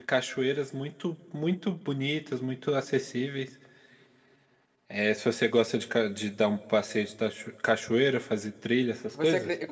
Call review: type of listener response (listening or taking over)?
taking over